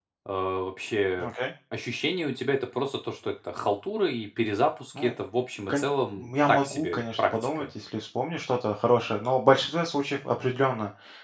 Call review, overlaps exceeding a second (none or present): present